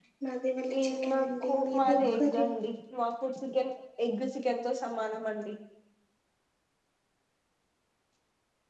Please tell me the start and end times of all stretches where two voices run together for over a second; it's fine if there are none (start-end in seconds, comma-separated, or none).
0.8-2.5